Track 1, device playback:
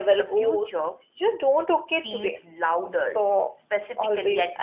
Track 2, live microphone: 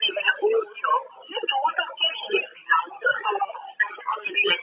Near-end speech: none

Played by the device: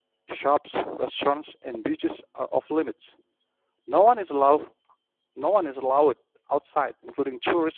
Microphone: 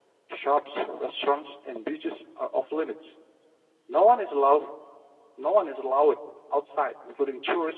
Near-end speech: none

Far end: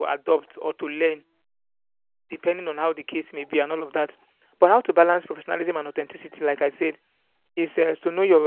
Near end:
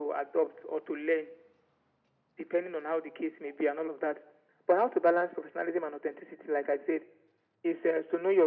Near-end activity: none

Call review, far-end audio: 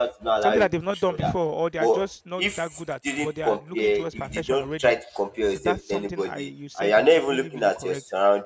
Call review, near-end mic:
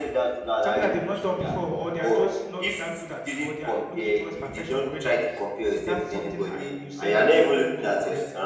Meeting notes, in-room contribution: none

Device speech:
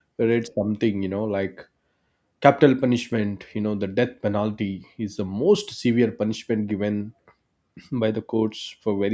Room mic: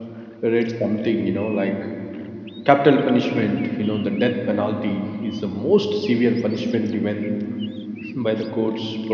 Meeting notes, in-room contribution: none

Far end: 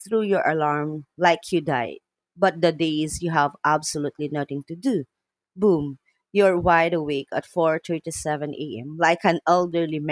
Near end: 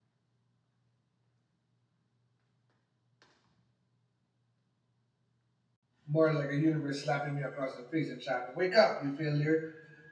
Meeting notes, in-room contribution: present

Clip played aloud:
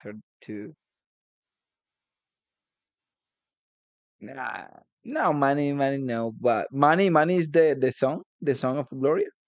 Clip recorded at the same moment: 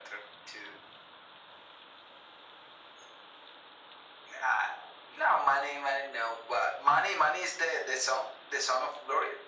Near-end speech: none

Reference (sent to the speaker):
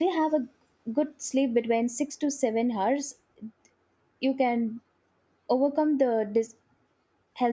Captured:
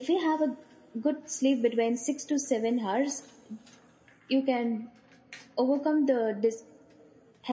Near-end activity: none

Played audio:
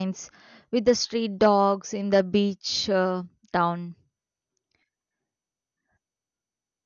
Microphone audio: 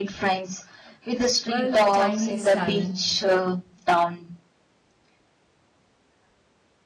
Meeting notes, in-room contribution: present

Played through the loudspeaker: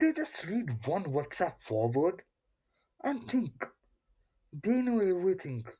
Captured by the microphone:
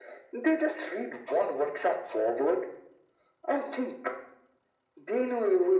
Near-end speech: none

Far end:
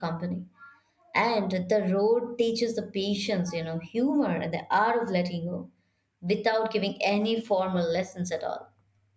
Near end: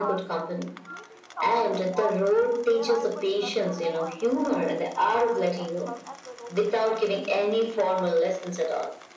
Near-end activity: present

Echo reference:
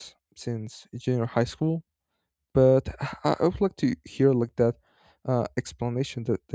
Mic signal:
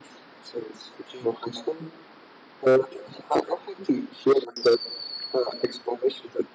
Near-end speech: none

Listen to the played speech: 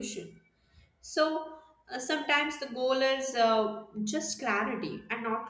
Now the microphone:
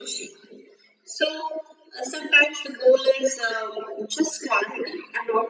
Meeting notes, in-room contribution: none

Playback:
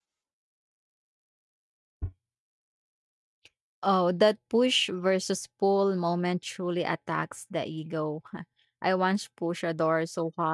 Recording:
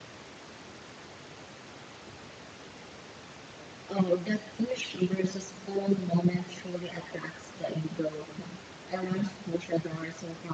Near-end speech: none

